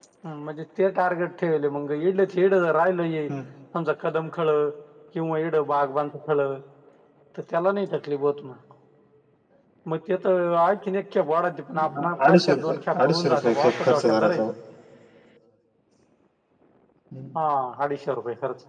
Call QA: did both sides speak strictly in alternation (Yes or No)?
No